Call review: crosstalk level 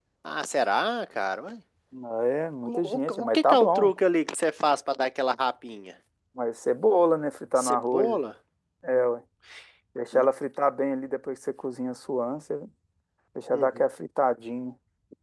present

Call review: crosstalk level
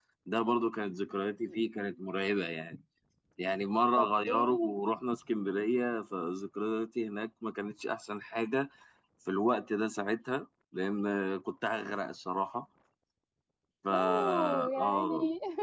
present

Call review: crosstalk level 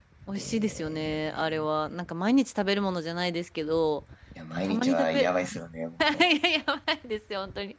present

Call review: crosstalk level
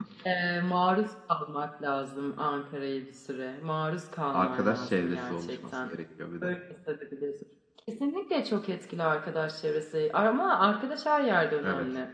present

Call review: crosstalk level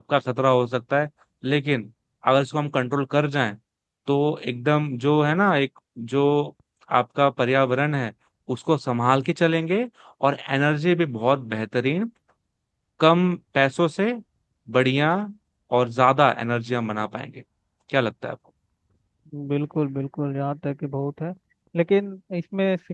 none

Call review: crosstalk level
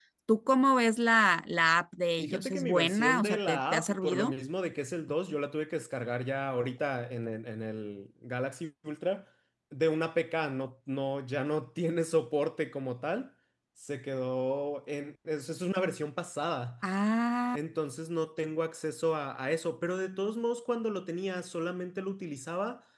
present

